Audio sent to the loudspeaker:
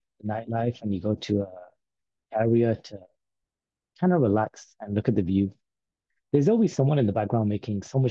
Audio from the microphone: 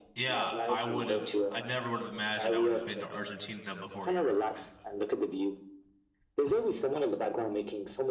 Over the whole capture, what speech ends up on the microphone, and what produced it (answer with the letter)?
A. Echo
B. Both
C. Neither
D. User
B